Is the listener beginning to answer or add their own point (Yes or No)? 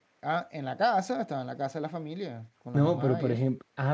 Yes